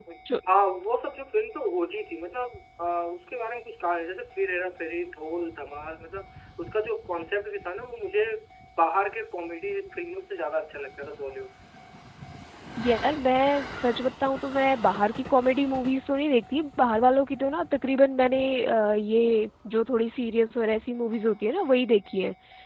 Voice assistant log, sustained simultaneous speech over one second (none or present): none